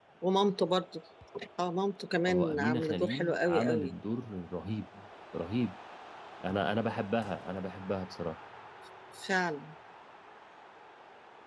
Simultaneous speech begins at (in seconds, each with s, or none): 2.2 s